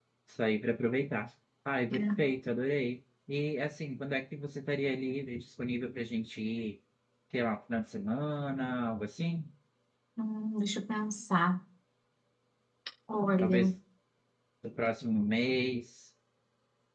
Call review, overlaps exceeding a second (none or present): none